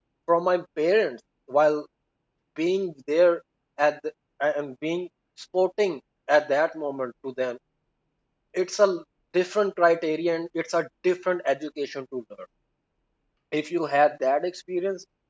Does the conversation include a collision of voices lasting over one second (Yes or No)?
No